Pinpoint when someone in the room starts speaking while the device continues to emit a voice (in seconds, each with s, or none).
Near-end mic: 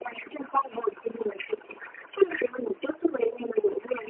none